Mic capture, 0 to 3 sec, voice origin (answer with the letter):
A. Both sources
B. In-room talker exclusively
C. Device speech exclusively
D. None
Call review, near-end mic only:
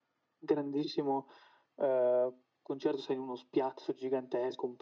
C